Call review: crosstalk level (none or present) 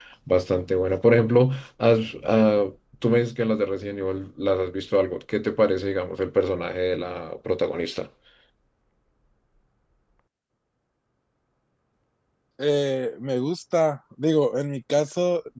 none